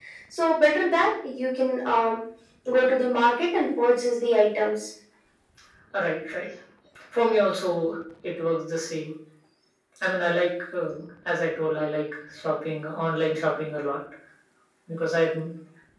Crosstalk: none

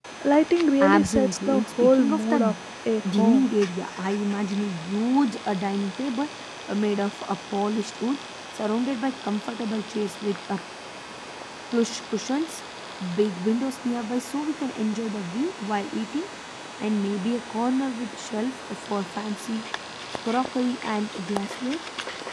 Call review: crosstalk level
present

